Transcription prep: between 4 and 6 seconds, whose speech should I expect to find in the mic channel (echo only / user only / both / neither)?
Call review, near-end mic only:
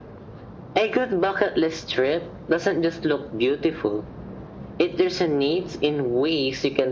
echo only